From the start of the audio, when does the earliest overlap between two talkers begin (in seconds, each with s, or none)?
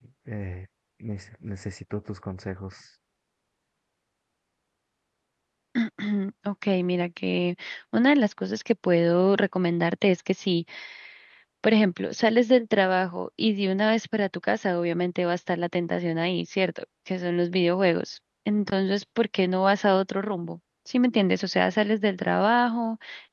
none